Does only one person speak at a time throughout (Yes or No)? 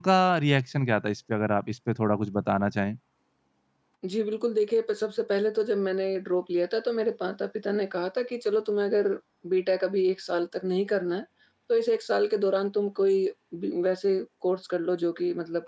Yes